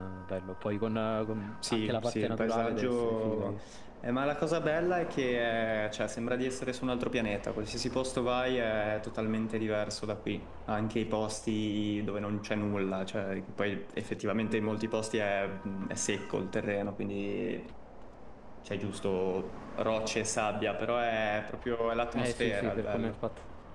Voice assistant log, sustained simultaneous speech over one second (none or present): present